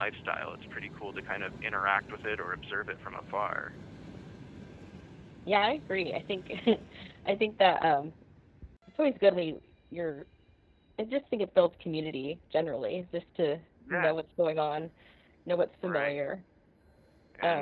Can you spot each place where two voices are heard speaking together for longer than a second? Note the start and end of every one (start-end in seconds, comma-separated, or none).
none